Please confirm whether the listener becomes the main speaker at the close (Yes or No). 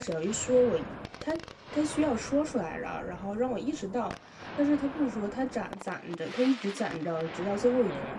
Yes